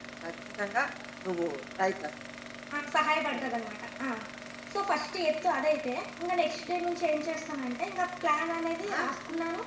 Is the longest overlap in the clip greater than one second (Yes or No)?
No